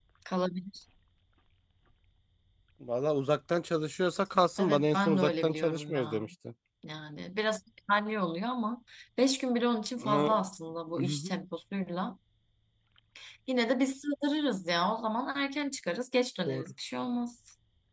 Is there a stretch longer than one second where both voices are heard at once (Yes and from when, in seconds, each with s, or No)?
Yes, from 4.6 s